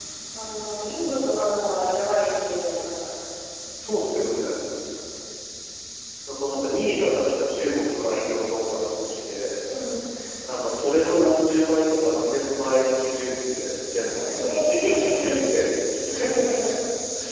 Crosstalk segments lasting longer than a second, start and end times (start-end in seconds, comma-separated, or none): 14.3-15.5